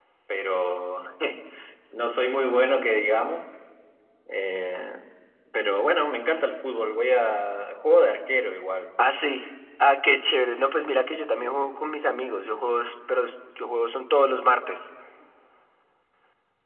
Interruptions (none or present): none